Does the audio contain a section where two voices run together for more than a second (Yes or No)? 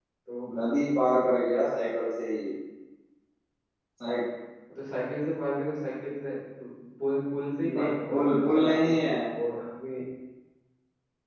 Yes